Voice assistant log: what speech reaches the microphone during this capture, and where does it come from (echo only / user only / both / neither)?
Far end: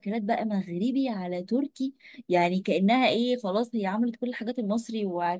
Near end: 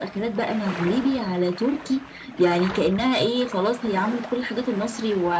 echo only